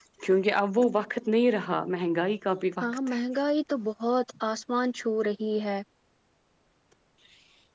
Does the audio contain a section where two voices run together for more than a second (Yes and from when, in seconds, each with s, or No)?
No